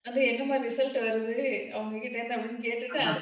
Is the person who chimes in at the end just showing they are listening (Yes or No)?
Yes